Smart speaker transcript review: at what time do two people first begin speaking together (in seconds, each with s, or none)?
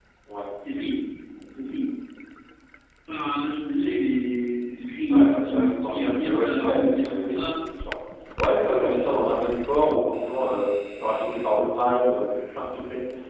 5.1 s